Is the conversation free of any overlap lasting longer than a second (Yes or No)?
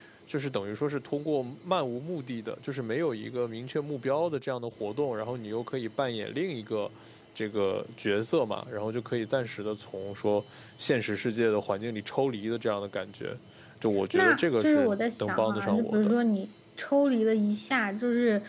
No